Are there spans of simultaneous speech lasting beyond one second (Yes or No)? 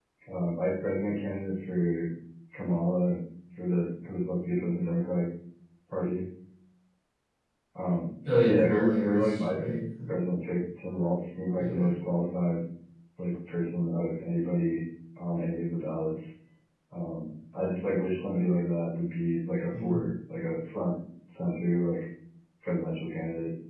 Yes